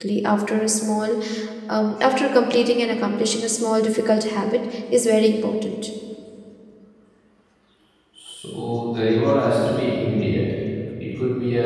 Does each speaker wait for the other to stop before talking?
Yes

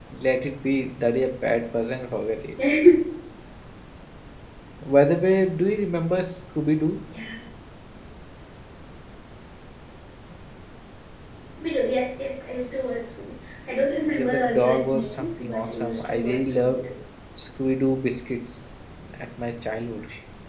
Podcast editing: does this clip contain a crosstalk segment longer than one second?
Yes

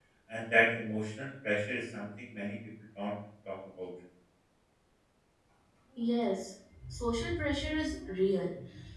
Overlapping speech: No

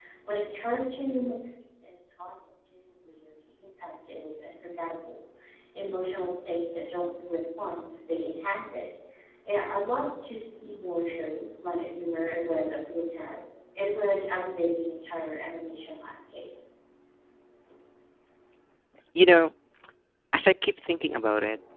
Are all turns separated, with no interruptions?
Yes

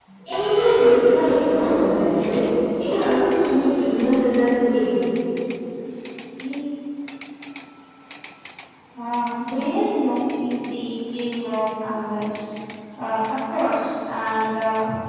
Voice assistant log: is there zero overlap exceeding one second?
Yes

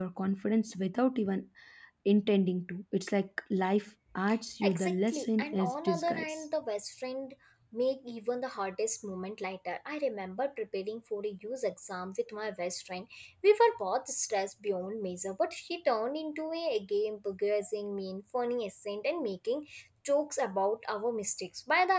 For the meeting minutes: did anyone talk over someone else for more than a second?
Yes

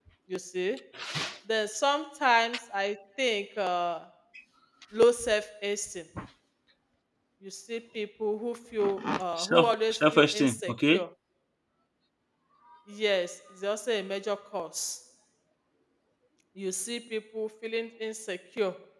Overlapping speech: Yes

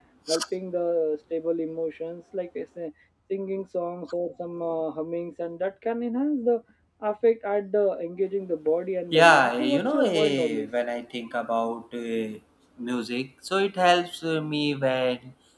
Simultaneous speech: Yes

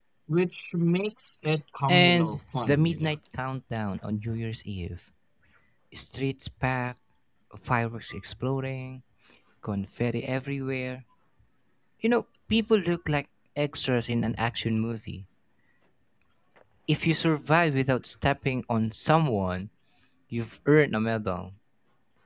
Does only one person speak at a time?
No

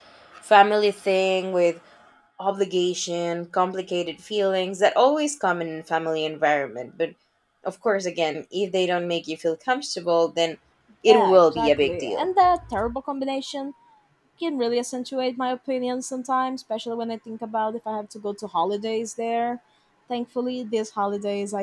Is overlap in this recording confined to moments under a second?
No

